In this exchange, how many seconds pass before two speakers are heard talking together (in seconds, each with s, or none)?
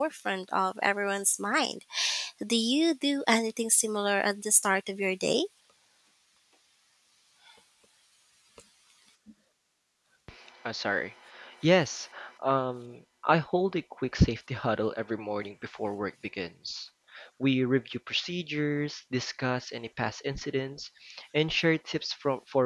none